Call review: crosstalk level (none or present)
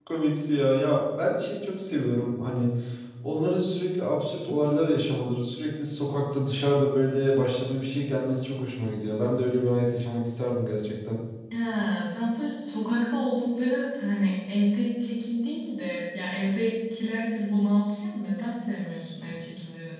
none